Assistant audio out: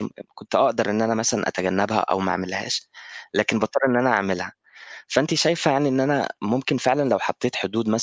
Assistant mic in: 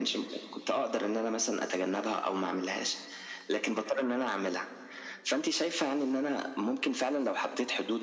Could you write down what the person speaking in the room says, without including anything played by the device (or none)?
none